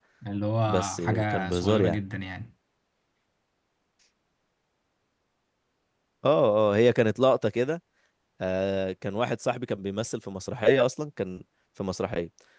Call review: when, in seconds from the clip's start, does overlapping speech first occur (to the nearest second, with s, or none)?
1 s